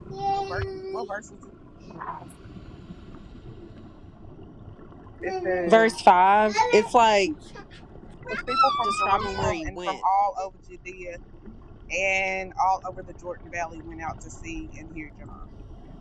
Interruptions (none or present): present